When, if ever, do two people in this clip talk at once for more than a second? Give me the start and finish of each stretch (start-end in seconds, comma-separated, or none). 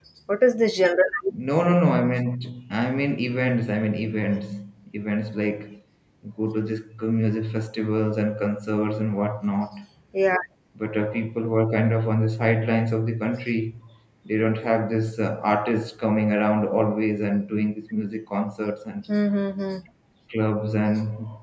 none